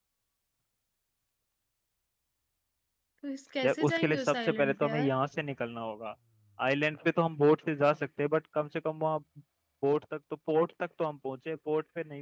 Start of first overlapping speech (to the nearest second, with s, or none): 4 s